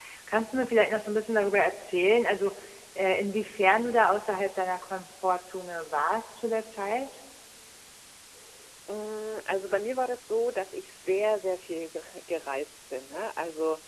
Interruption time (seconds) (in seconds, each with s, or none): none